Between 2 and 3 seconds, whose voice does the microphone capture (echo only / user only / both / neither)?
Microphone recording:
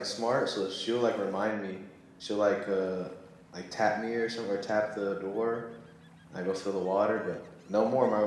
echo only